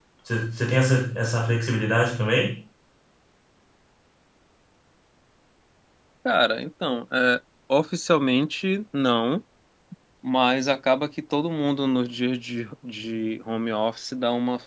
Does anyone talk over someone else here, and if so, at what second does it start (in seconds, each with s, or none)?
none